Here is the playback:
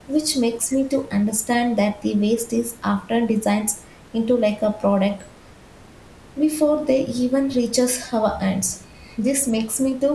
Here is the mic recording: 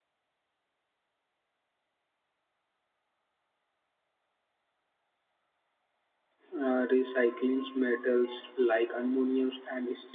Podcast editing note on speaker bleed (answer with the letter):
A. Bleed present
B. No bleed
B